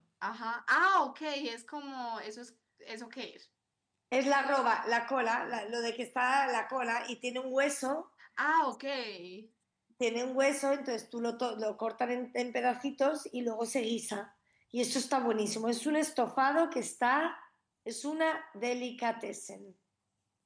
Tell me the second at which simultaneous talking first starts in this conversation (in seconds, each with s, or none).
none